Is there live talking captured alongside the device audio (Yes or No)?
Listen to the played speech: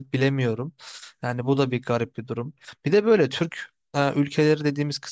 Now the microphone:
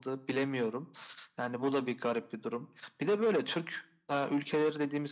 No